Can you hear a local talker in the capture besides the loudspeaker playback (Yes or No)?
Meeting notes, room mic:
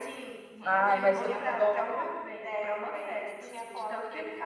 Yes